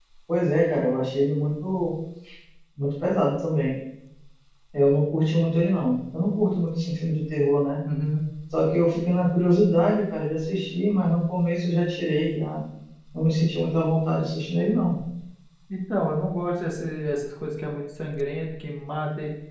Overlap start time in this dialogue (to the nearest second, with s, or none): none